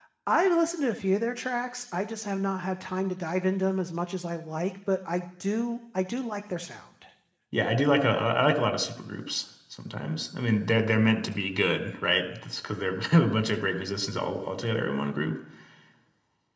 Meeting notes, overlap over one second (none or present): none